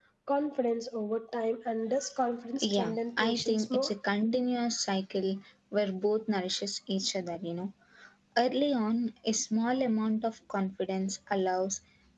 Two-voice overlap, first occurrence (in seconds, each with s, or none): 2.6 s